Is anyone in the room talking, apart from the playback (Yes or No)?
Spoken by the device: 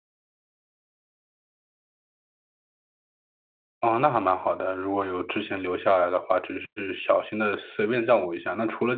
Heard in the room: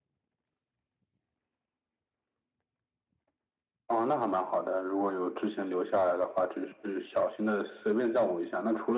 No